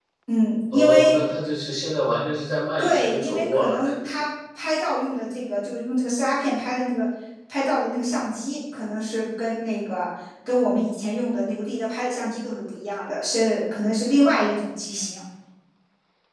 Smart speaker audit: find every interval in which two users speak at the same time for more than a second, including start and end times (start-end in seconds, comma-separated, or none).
2.8-4.2